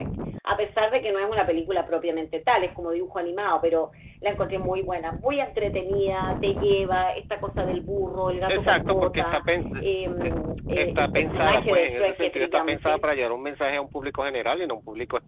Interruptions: present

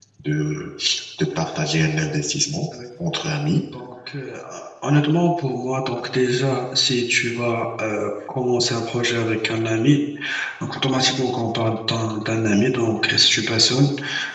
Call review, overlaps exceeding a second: none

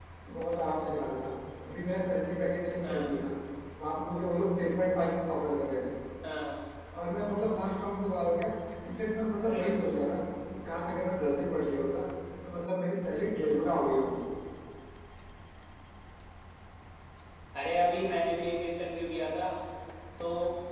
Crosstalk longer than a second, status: none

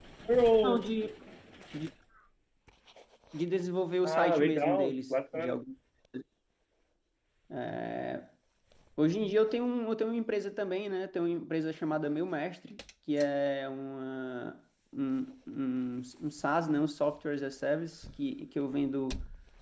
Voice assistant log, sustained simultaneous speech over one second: present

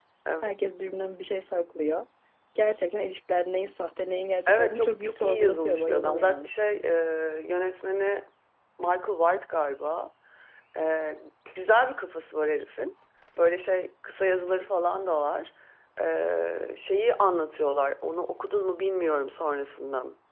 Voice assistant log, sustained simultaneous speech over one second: present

